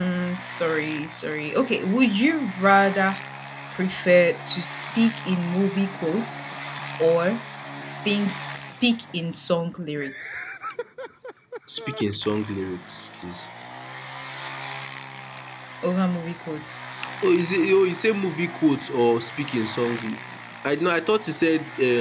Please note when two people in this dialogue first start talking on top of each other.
none

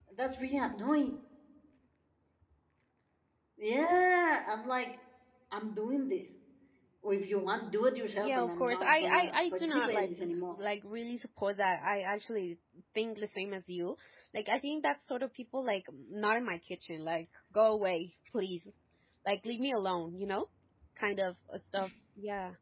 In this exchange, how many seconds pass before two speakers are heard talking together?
8.2 s

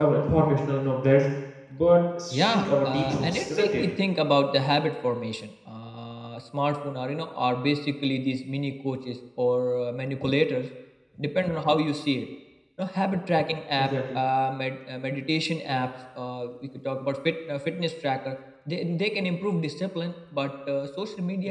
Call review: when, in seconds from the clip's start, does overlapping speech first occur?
2.3 s

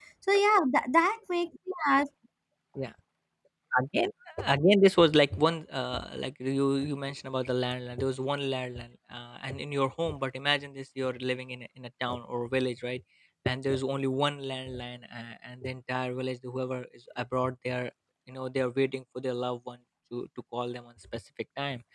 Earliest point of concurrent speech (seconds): none

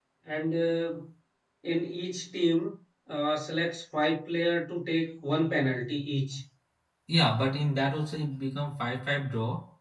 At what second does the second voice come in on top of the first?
none

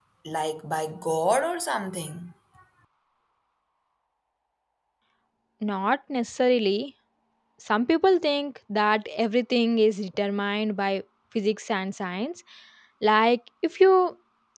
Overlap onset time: none

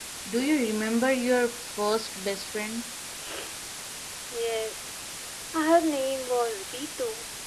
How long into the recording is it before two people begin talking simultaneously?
none

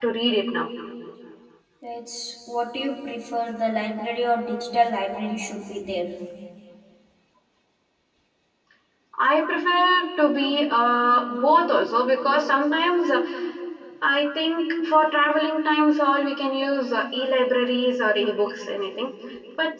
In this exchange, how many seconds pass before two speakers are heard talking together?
none

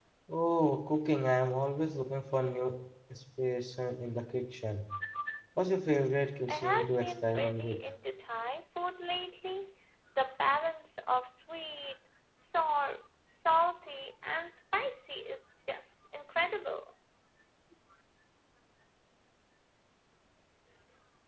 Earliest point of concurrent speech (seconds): 6.5 s

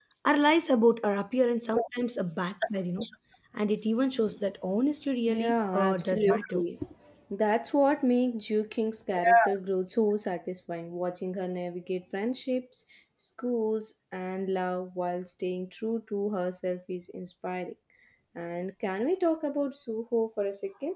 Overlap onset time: 5.3 s

